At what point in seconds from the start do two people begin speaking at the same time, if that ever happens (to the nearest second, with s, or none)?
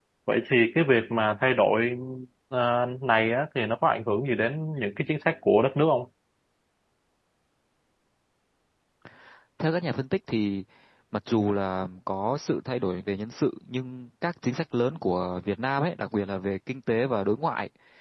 none